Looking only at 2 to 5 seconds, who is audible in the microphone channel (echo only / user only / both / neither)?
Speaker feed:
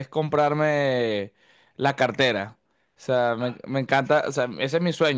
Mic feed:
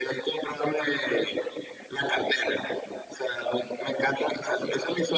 echo only